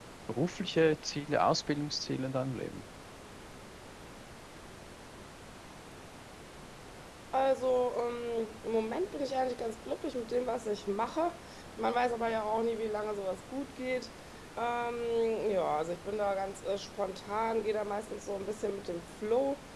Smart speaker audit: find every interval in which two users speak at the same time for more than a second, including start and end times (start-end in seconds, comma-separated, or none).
none